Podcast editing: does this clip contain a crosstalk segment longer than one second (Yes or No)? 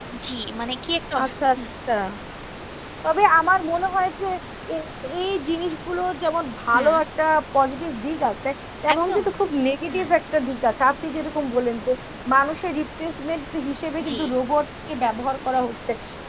No